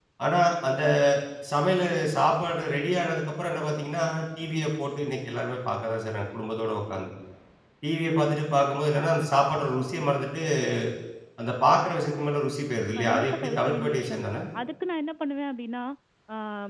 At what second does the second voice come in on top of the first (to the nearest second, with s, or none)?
13 s